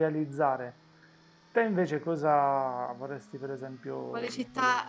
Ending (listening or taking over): taking over